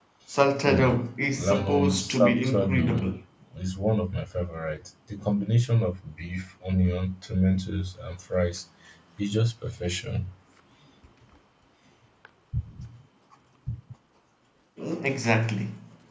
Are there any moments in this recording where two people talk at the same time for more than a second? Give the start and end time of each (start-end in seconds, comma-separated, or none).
1.4-3.0